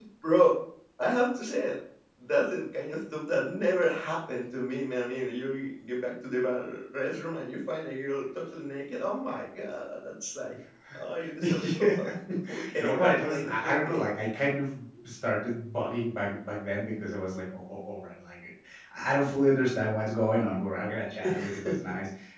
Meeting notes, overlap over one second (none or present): present